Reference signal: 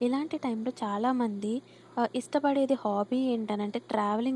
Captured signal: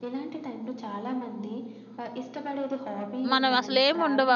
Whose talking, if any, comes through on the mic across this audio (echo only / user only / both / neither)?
both